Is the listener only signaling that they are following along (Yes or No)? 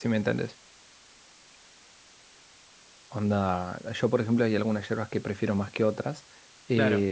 Yes